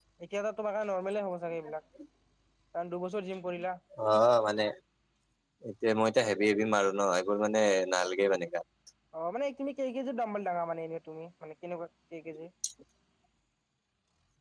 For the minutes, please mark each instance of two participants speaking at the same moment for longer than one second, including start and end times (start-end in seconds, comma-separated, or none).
none